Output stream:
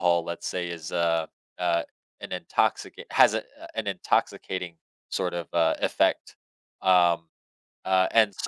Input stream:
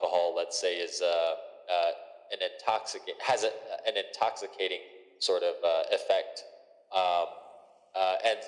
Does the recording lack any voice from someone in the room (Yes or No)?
Yes